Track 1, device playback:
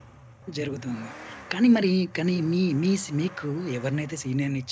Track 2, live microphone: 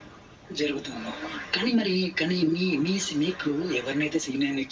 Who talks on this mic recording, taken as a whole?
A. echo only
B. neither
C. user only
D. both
A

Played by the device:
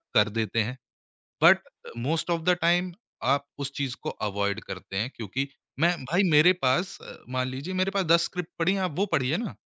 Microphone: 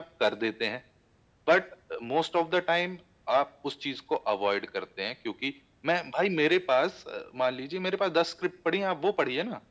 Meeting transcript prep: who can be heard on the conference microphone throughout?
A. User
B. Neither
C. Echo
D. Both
C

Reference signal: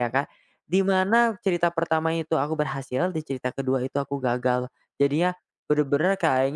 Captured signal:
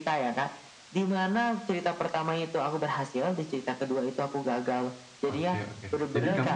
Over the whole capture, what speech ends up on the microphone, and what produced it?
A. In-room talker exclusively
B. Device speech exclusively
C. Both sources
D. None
C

